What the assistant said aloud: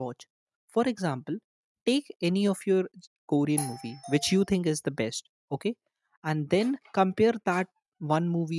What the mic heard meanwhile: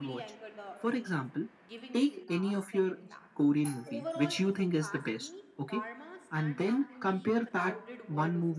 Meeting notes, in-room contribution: present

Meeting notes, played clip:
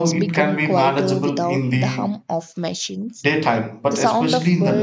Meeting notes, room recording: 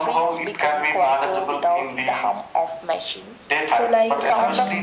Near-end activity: present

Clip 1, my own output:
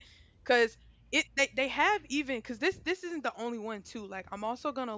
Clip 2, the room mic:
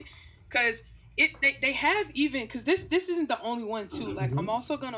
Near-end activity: present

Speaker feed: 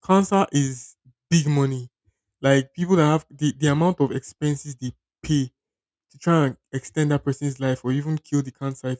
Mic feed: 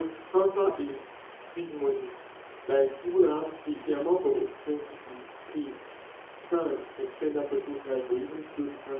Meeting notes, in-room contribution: none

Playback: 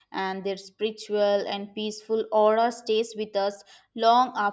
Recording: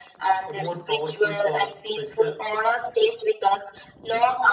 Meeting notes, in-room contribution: present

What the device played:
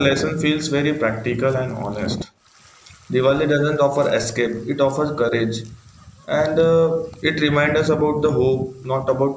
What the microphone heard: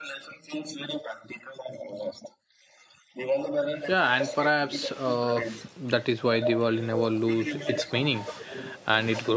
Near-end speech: present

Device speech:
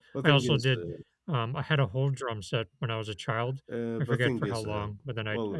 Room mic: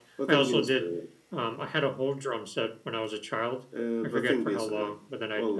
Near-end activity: none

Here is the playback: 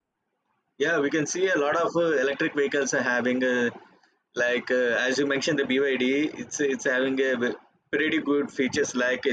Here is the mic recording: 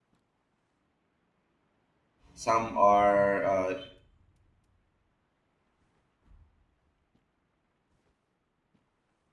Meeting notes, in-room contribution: present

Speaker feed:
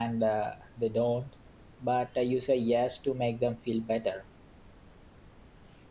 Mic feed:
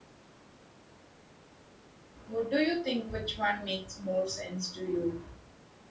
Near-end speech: present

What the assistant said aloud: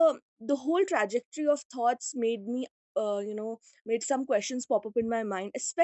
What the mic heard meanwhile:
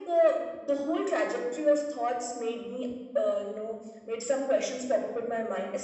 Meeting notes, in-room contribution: none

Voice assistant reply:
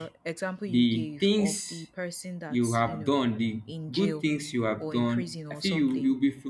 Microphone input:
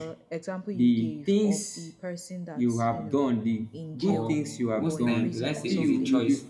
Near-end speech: present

